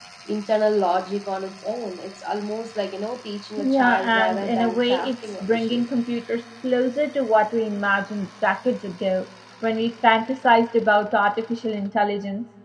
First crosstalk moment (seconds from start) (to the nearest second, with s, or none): 4 s